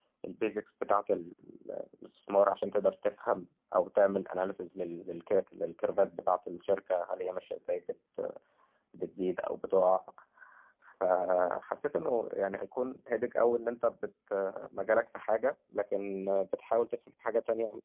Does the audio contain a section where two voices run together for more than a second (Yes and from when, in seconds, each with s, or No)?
No